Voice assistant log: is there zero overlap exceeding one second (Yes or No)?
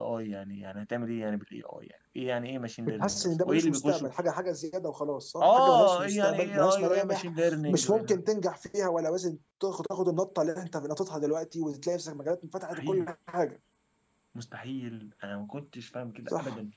No